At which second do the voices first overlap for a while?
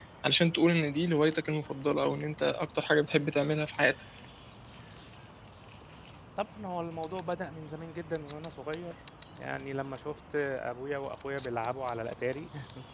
none

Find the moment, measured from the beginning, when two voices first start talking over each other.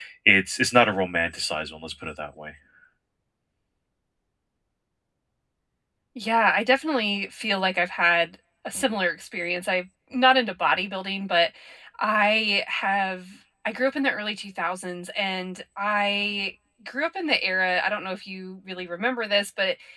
none

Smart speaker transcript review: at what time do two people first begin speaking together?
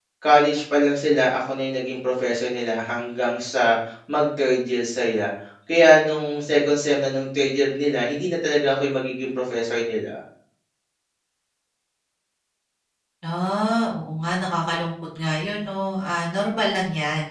none

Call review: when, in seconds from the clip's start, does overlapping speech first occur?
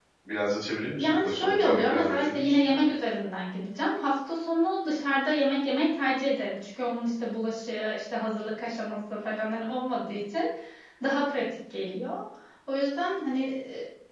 1 s

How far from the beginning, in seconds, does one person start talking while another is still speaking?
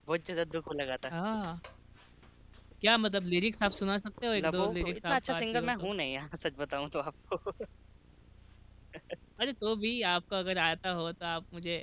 4 s

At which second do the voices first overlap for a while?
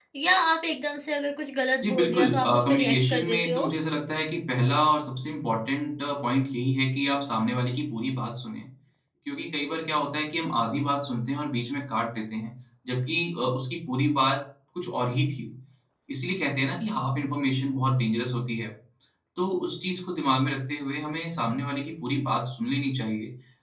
2 s

